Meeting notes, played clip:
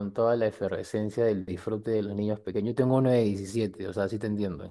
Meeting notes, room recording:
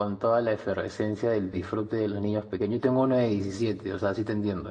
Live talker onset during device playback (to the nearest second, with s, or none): none